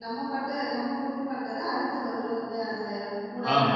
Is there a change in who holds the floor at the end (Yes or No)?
Yes